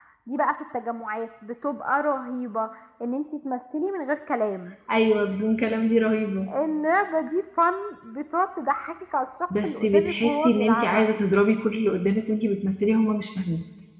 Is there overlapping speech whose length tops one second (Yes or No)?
Yes